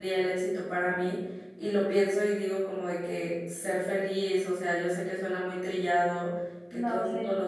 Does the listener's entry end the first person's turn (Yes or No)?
No